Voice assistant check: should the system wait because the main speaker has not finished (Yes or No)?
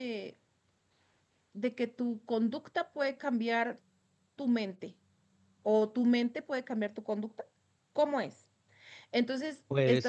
Yes